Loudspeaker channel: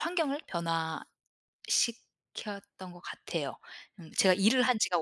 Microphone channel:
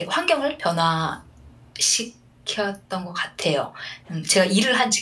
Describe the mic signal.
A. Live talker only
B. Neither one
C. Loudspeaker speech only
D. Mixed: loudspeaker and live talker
C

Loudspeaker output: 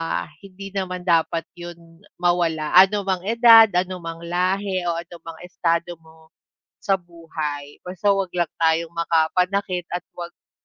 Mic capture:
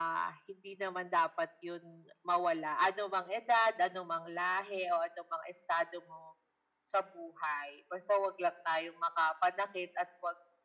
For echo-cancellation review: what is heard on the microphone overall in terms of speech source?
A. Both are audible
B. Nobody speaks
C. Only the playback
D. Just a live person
C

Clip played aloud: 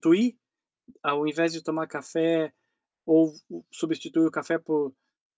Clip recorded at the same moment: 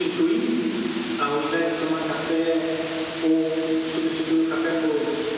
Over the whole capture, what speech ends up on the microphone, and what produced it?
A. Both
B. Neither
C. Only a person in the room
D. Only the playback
D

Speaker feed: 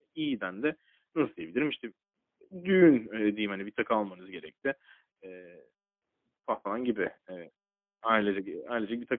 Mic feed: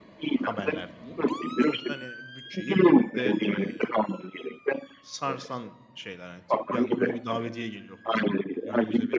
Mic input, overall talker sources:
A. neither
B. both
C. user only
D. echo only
B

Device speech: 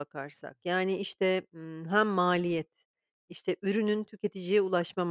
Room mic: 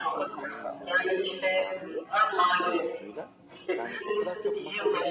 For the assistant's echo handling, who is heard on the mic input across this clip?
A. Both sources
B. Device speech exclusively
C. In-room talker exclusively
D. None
A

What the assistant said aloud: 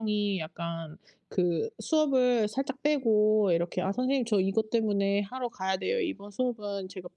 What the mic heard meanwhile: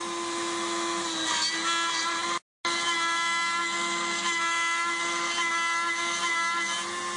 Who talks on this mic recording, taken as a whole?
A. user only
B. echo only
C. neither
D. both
C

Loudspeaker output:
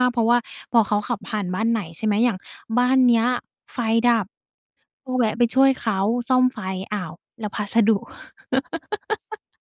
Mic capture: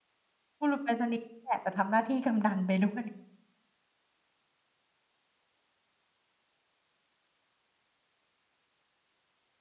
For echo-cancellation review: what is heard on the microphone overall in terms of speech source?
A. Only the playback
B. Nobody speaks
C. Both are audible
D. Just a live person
D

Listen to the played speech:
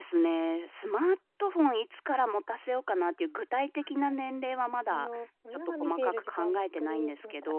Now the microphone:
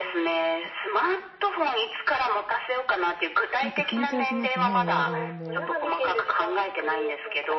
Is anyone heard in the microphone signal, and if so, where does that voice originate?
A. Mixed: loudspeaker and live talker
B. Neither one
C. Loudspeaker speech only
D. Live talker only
A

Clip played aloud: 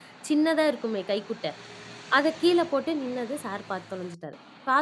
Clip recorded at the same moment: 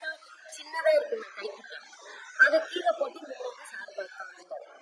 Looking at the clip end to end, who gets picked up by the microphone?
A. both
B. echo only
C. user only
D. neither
B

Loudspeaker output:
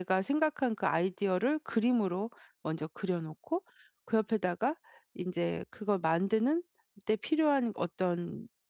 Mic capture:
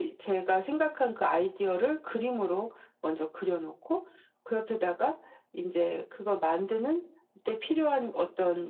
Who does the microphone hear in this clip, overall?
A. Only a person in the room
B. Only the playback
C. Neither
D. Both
B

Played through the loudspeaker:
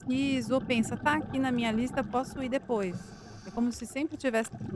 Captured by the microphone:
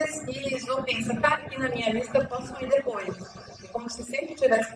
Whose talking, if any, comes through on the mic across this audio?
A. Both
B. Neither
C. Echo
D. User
C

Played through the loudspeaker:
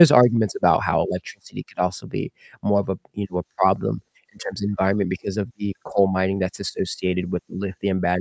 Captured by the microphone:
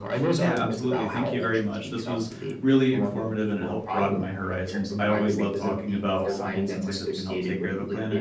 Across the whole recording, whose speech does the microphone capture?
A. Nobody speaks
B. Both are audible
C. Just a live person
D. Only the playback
B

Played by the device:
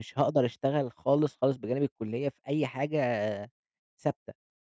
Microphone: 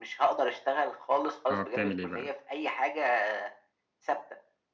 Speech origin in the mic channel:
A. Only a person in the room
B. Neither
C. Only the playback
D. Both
D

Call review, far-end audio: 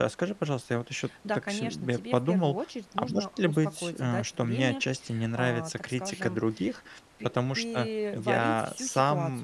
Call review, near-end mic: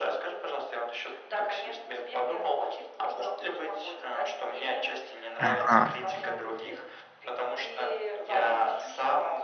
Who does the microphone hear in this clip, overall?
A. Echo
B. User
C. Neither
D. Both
D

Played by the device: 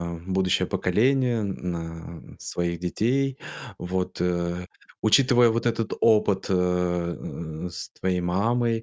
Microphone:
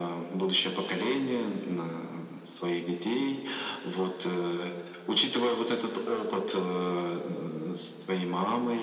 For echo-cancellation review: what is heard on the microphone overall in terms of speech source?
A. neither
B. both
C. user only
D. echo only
D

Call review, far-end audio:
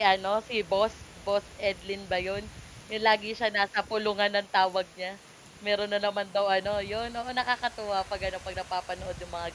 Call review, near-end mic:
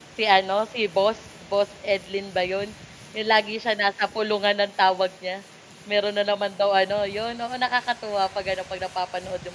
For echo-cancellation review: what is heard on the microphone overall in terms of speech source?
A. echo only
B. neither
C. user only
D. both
A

